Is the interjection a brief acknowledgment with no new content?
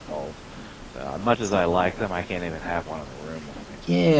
No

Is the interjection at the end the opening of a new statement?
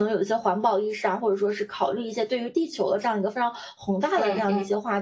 No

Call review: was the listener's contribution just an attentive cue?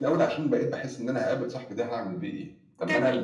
Yes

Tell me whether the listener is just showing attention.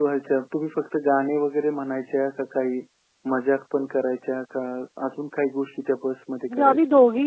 No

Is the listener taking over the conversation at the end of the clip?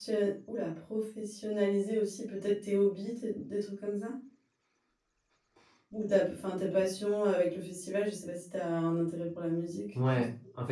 Yes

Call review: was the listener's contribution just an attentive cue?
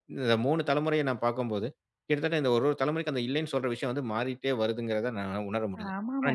No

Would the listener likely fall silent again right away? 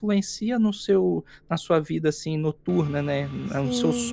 No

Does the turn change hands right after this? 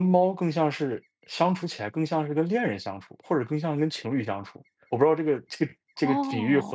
Yes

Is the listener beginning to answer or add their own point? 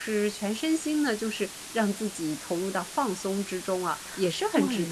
Yes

